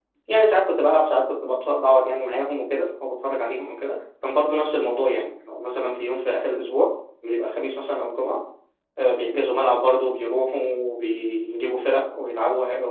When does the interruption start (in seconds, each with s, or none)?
none